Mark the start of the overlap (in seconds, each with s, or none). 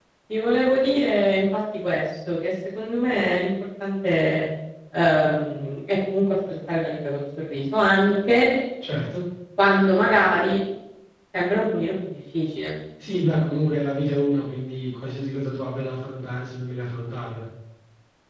none